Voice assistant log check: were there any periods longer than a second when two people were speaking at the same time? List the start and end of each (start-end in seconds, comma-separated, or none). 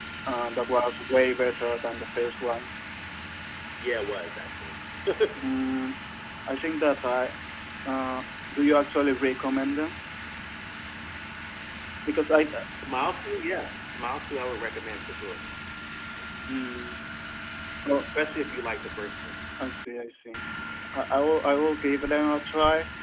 none